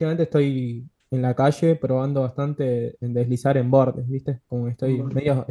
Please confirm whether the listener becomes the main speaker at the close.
No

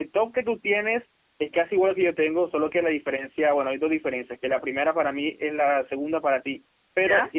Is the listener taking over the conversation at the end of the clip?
No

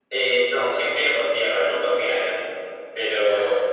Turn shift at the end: No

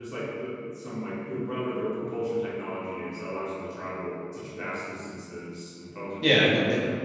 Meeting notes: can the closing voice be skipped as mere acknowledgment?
No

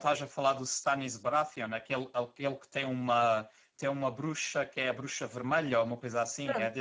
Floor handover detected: Yes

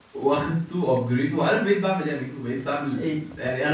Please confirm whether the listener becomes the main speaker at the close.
No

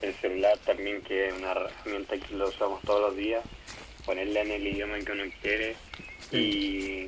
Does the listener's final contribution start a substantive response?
No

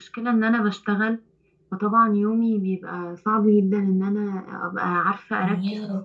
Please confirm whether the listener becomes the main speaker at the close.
No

